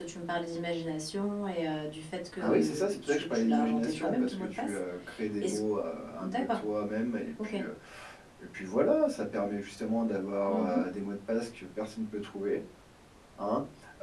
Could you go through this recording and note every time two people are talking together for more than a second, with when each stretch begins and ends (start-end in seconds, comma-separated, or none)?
2.4-4.8